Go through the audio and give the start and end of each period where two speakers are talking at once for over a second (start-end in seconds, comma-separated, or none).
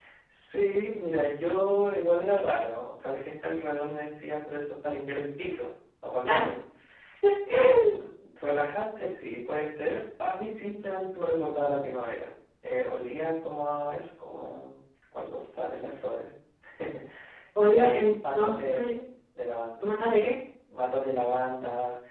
17.6-19.0